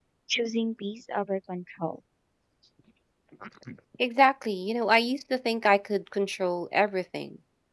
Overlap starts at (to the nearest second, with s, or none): none